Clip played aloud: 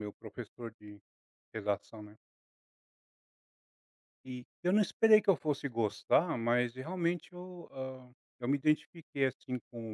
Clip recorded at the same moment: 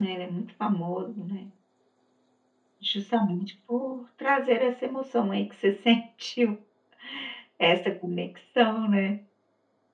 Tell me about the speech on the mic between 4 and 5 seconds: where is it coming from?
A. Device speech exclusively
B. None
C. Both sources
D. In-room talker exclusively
D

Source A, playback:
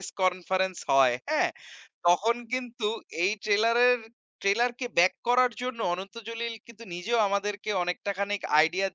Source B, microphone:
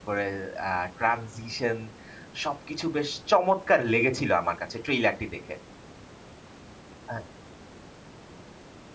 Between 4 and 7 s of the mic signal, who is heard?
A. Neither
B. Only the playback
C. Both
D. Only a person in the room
D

